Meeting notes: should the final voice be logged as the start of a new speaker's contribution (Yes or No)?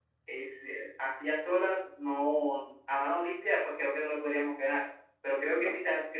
No